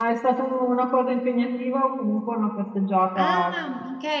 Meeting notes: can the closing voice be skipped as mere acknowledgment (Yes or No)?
No